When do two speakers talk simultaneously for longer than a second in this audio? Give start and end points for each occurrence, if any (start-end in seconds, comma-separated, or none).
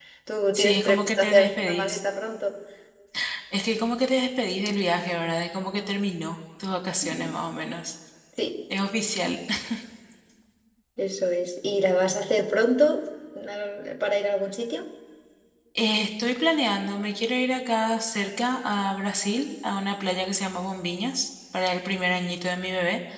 0.5-2.0